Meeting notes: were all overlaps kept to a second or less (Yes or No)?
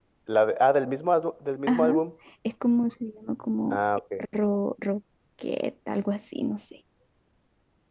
Yes